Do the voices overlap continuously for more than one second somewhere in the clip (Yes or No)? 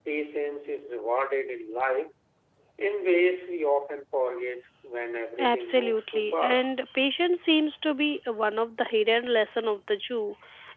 Yes